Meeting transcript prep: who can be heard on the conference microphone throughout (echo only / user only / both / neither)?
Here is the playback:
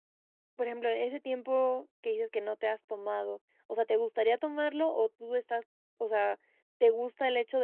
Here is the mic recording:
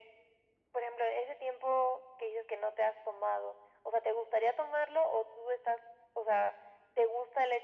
echo only